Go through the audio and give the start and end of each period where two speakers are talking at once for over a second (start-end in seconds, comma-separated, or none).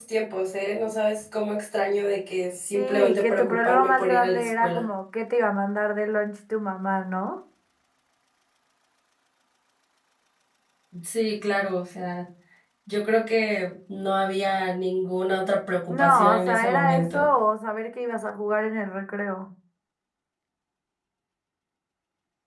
2.7-4.9, 15.9-17.3